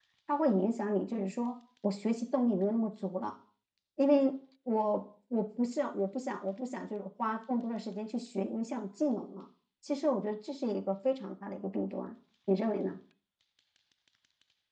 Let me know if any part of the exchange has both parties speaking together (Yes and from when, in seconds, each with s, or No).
No